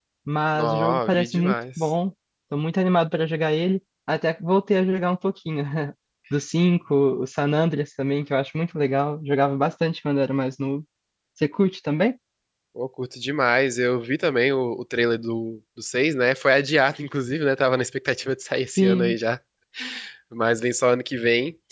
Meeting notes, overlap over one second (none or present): present